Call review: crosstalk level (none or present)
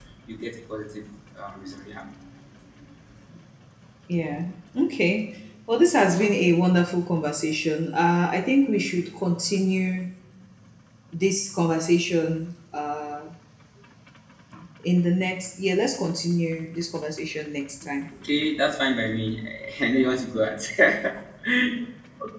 none